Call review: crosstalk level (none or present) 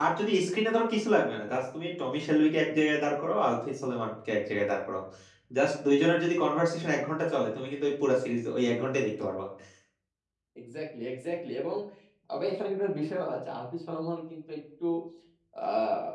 none